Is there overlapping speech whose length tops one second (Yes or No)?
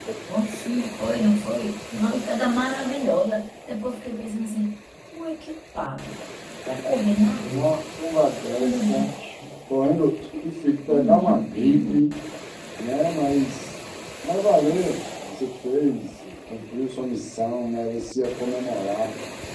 Yes